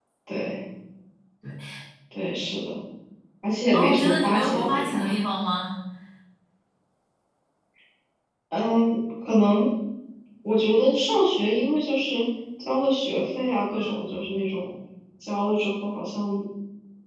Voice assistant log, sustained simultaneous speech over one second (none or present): present